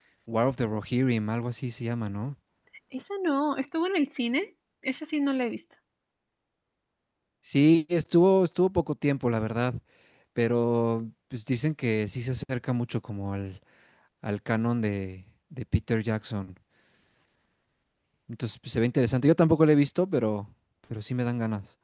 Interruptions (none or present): none